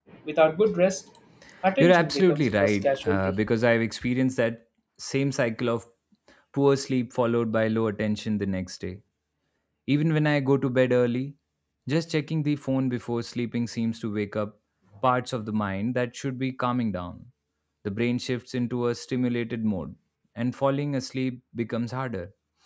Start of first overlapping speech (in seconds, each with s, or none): 1.8 s